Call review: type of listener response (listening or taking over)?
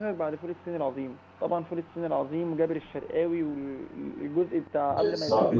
taking over